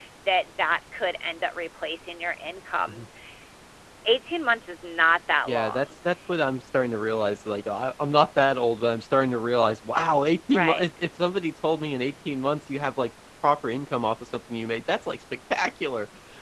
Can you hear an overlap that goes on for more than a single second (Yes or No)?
No